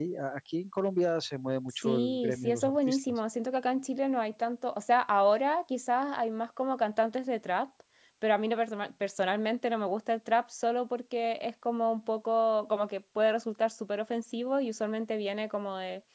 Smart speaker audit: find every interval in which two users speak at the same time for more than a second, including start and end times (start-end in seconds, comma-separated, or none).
1.7-3.2